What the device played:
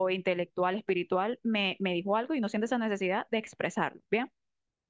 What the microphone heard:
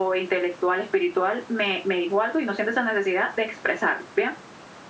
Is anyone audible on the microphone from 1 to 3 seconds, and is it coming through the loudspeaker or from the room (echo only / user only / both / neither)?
echo only